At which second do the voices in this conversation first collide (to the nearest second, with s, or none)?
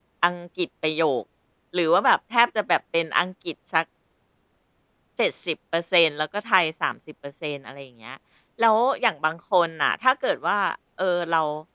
none